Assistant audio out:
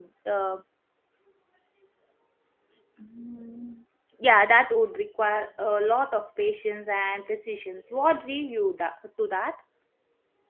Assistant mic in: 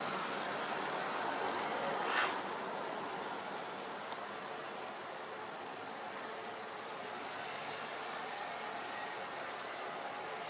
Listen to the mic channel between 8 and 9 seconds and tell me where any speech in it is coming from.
neither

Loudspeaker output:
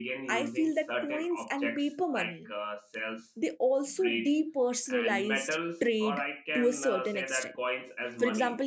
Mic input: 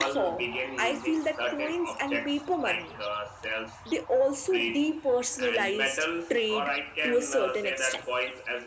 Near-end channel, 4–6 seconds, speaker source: echo only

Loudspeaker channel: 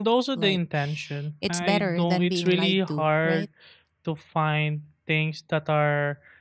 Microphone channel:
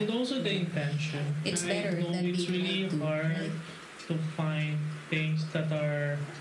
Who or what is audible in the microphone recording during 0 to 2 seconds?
echo only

